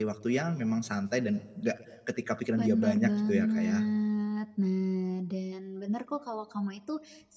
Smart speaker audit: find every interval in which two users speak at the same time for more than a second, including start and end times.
2.6-3.8

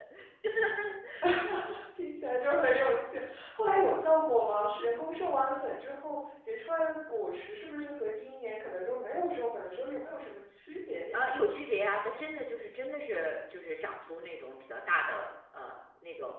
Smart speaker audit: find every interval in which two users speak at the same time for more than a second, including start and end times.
none

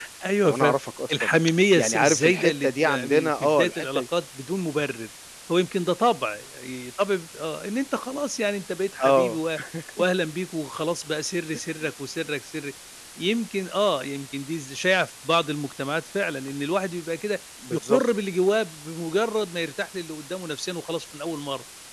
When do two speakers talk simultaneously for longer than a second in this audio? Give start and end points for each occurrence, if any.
1.8-4.0

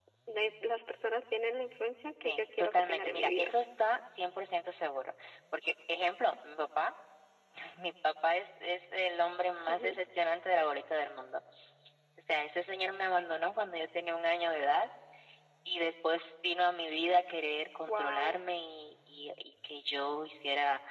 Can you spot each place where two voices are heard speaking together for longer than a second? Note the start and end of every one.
2.2-3.5

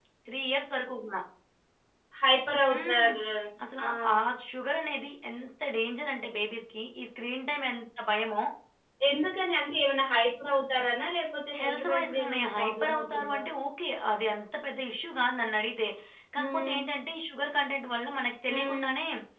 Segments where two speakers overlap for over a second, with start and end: 11.6-13.4

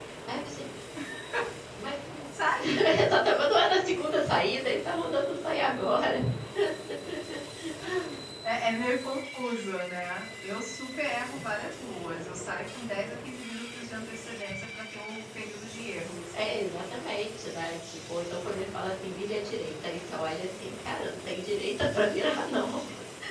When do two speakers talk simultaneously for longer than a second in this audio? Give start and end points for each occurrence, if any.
none

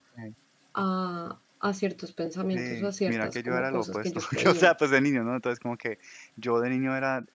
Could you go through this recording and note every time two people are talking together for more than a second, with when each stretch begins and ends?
2.5-4.7

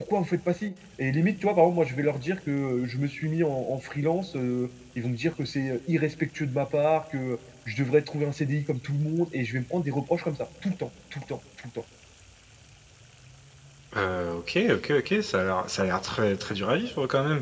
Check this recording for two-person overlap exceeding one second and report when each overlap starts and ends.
none

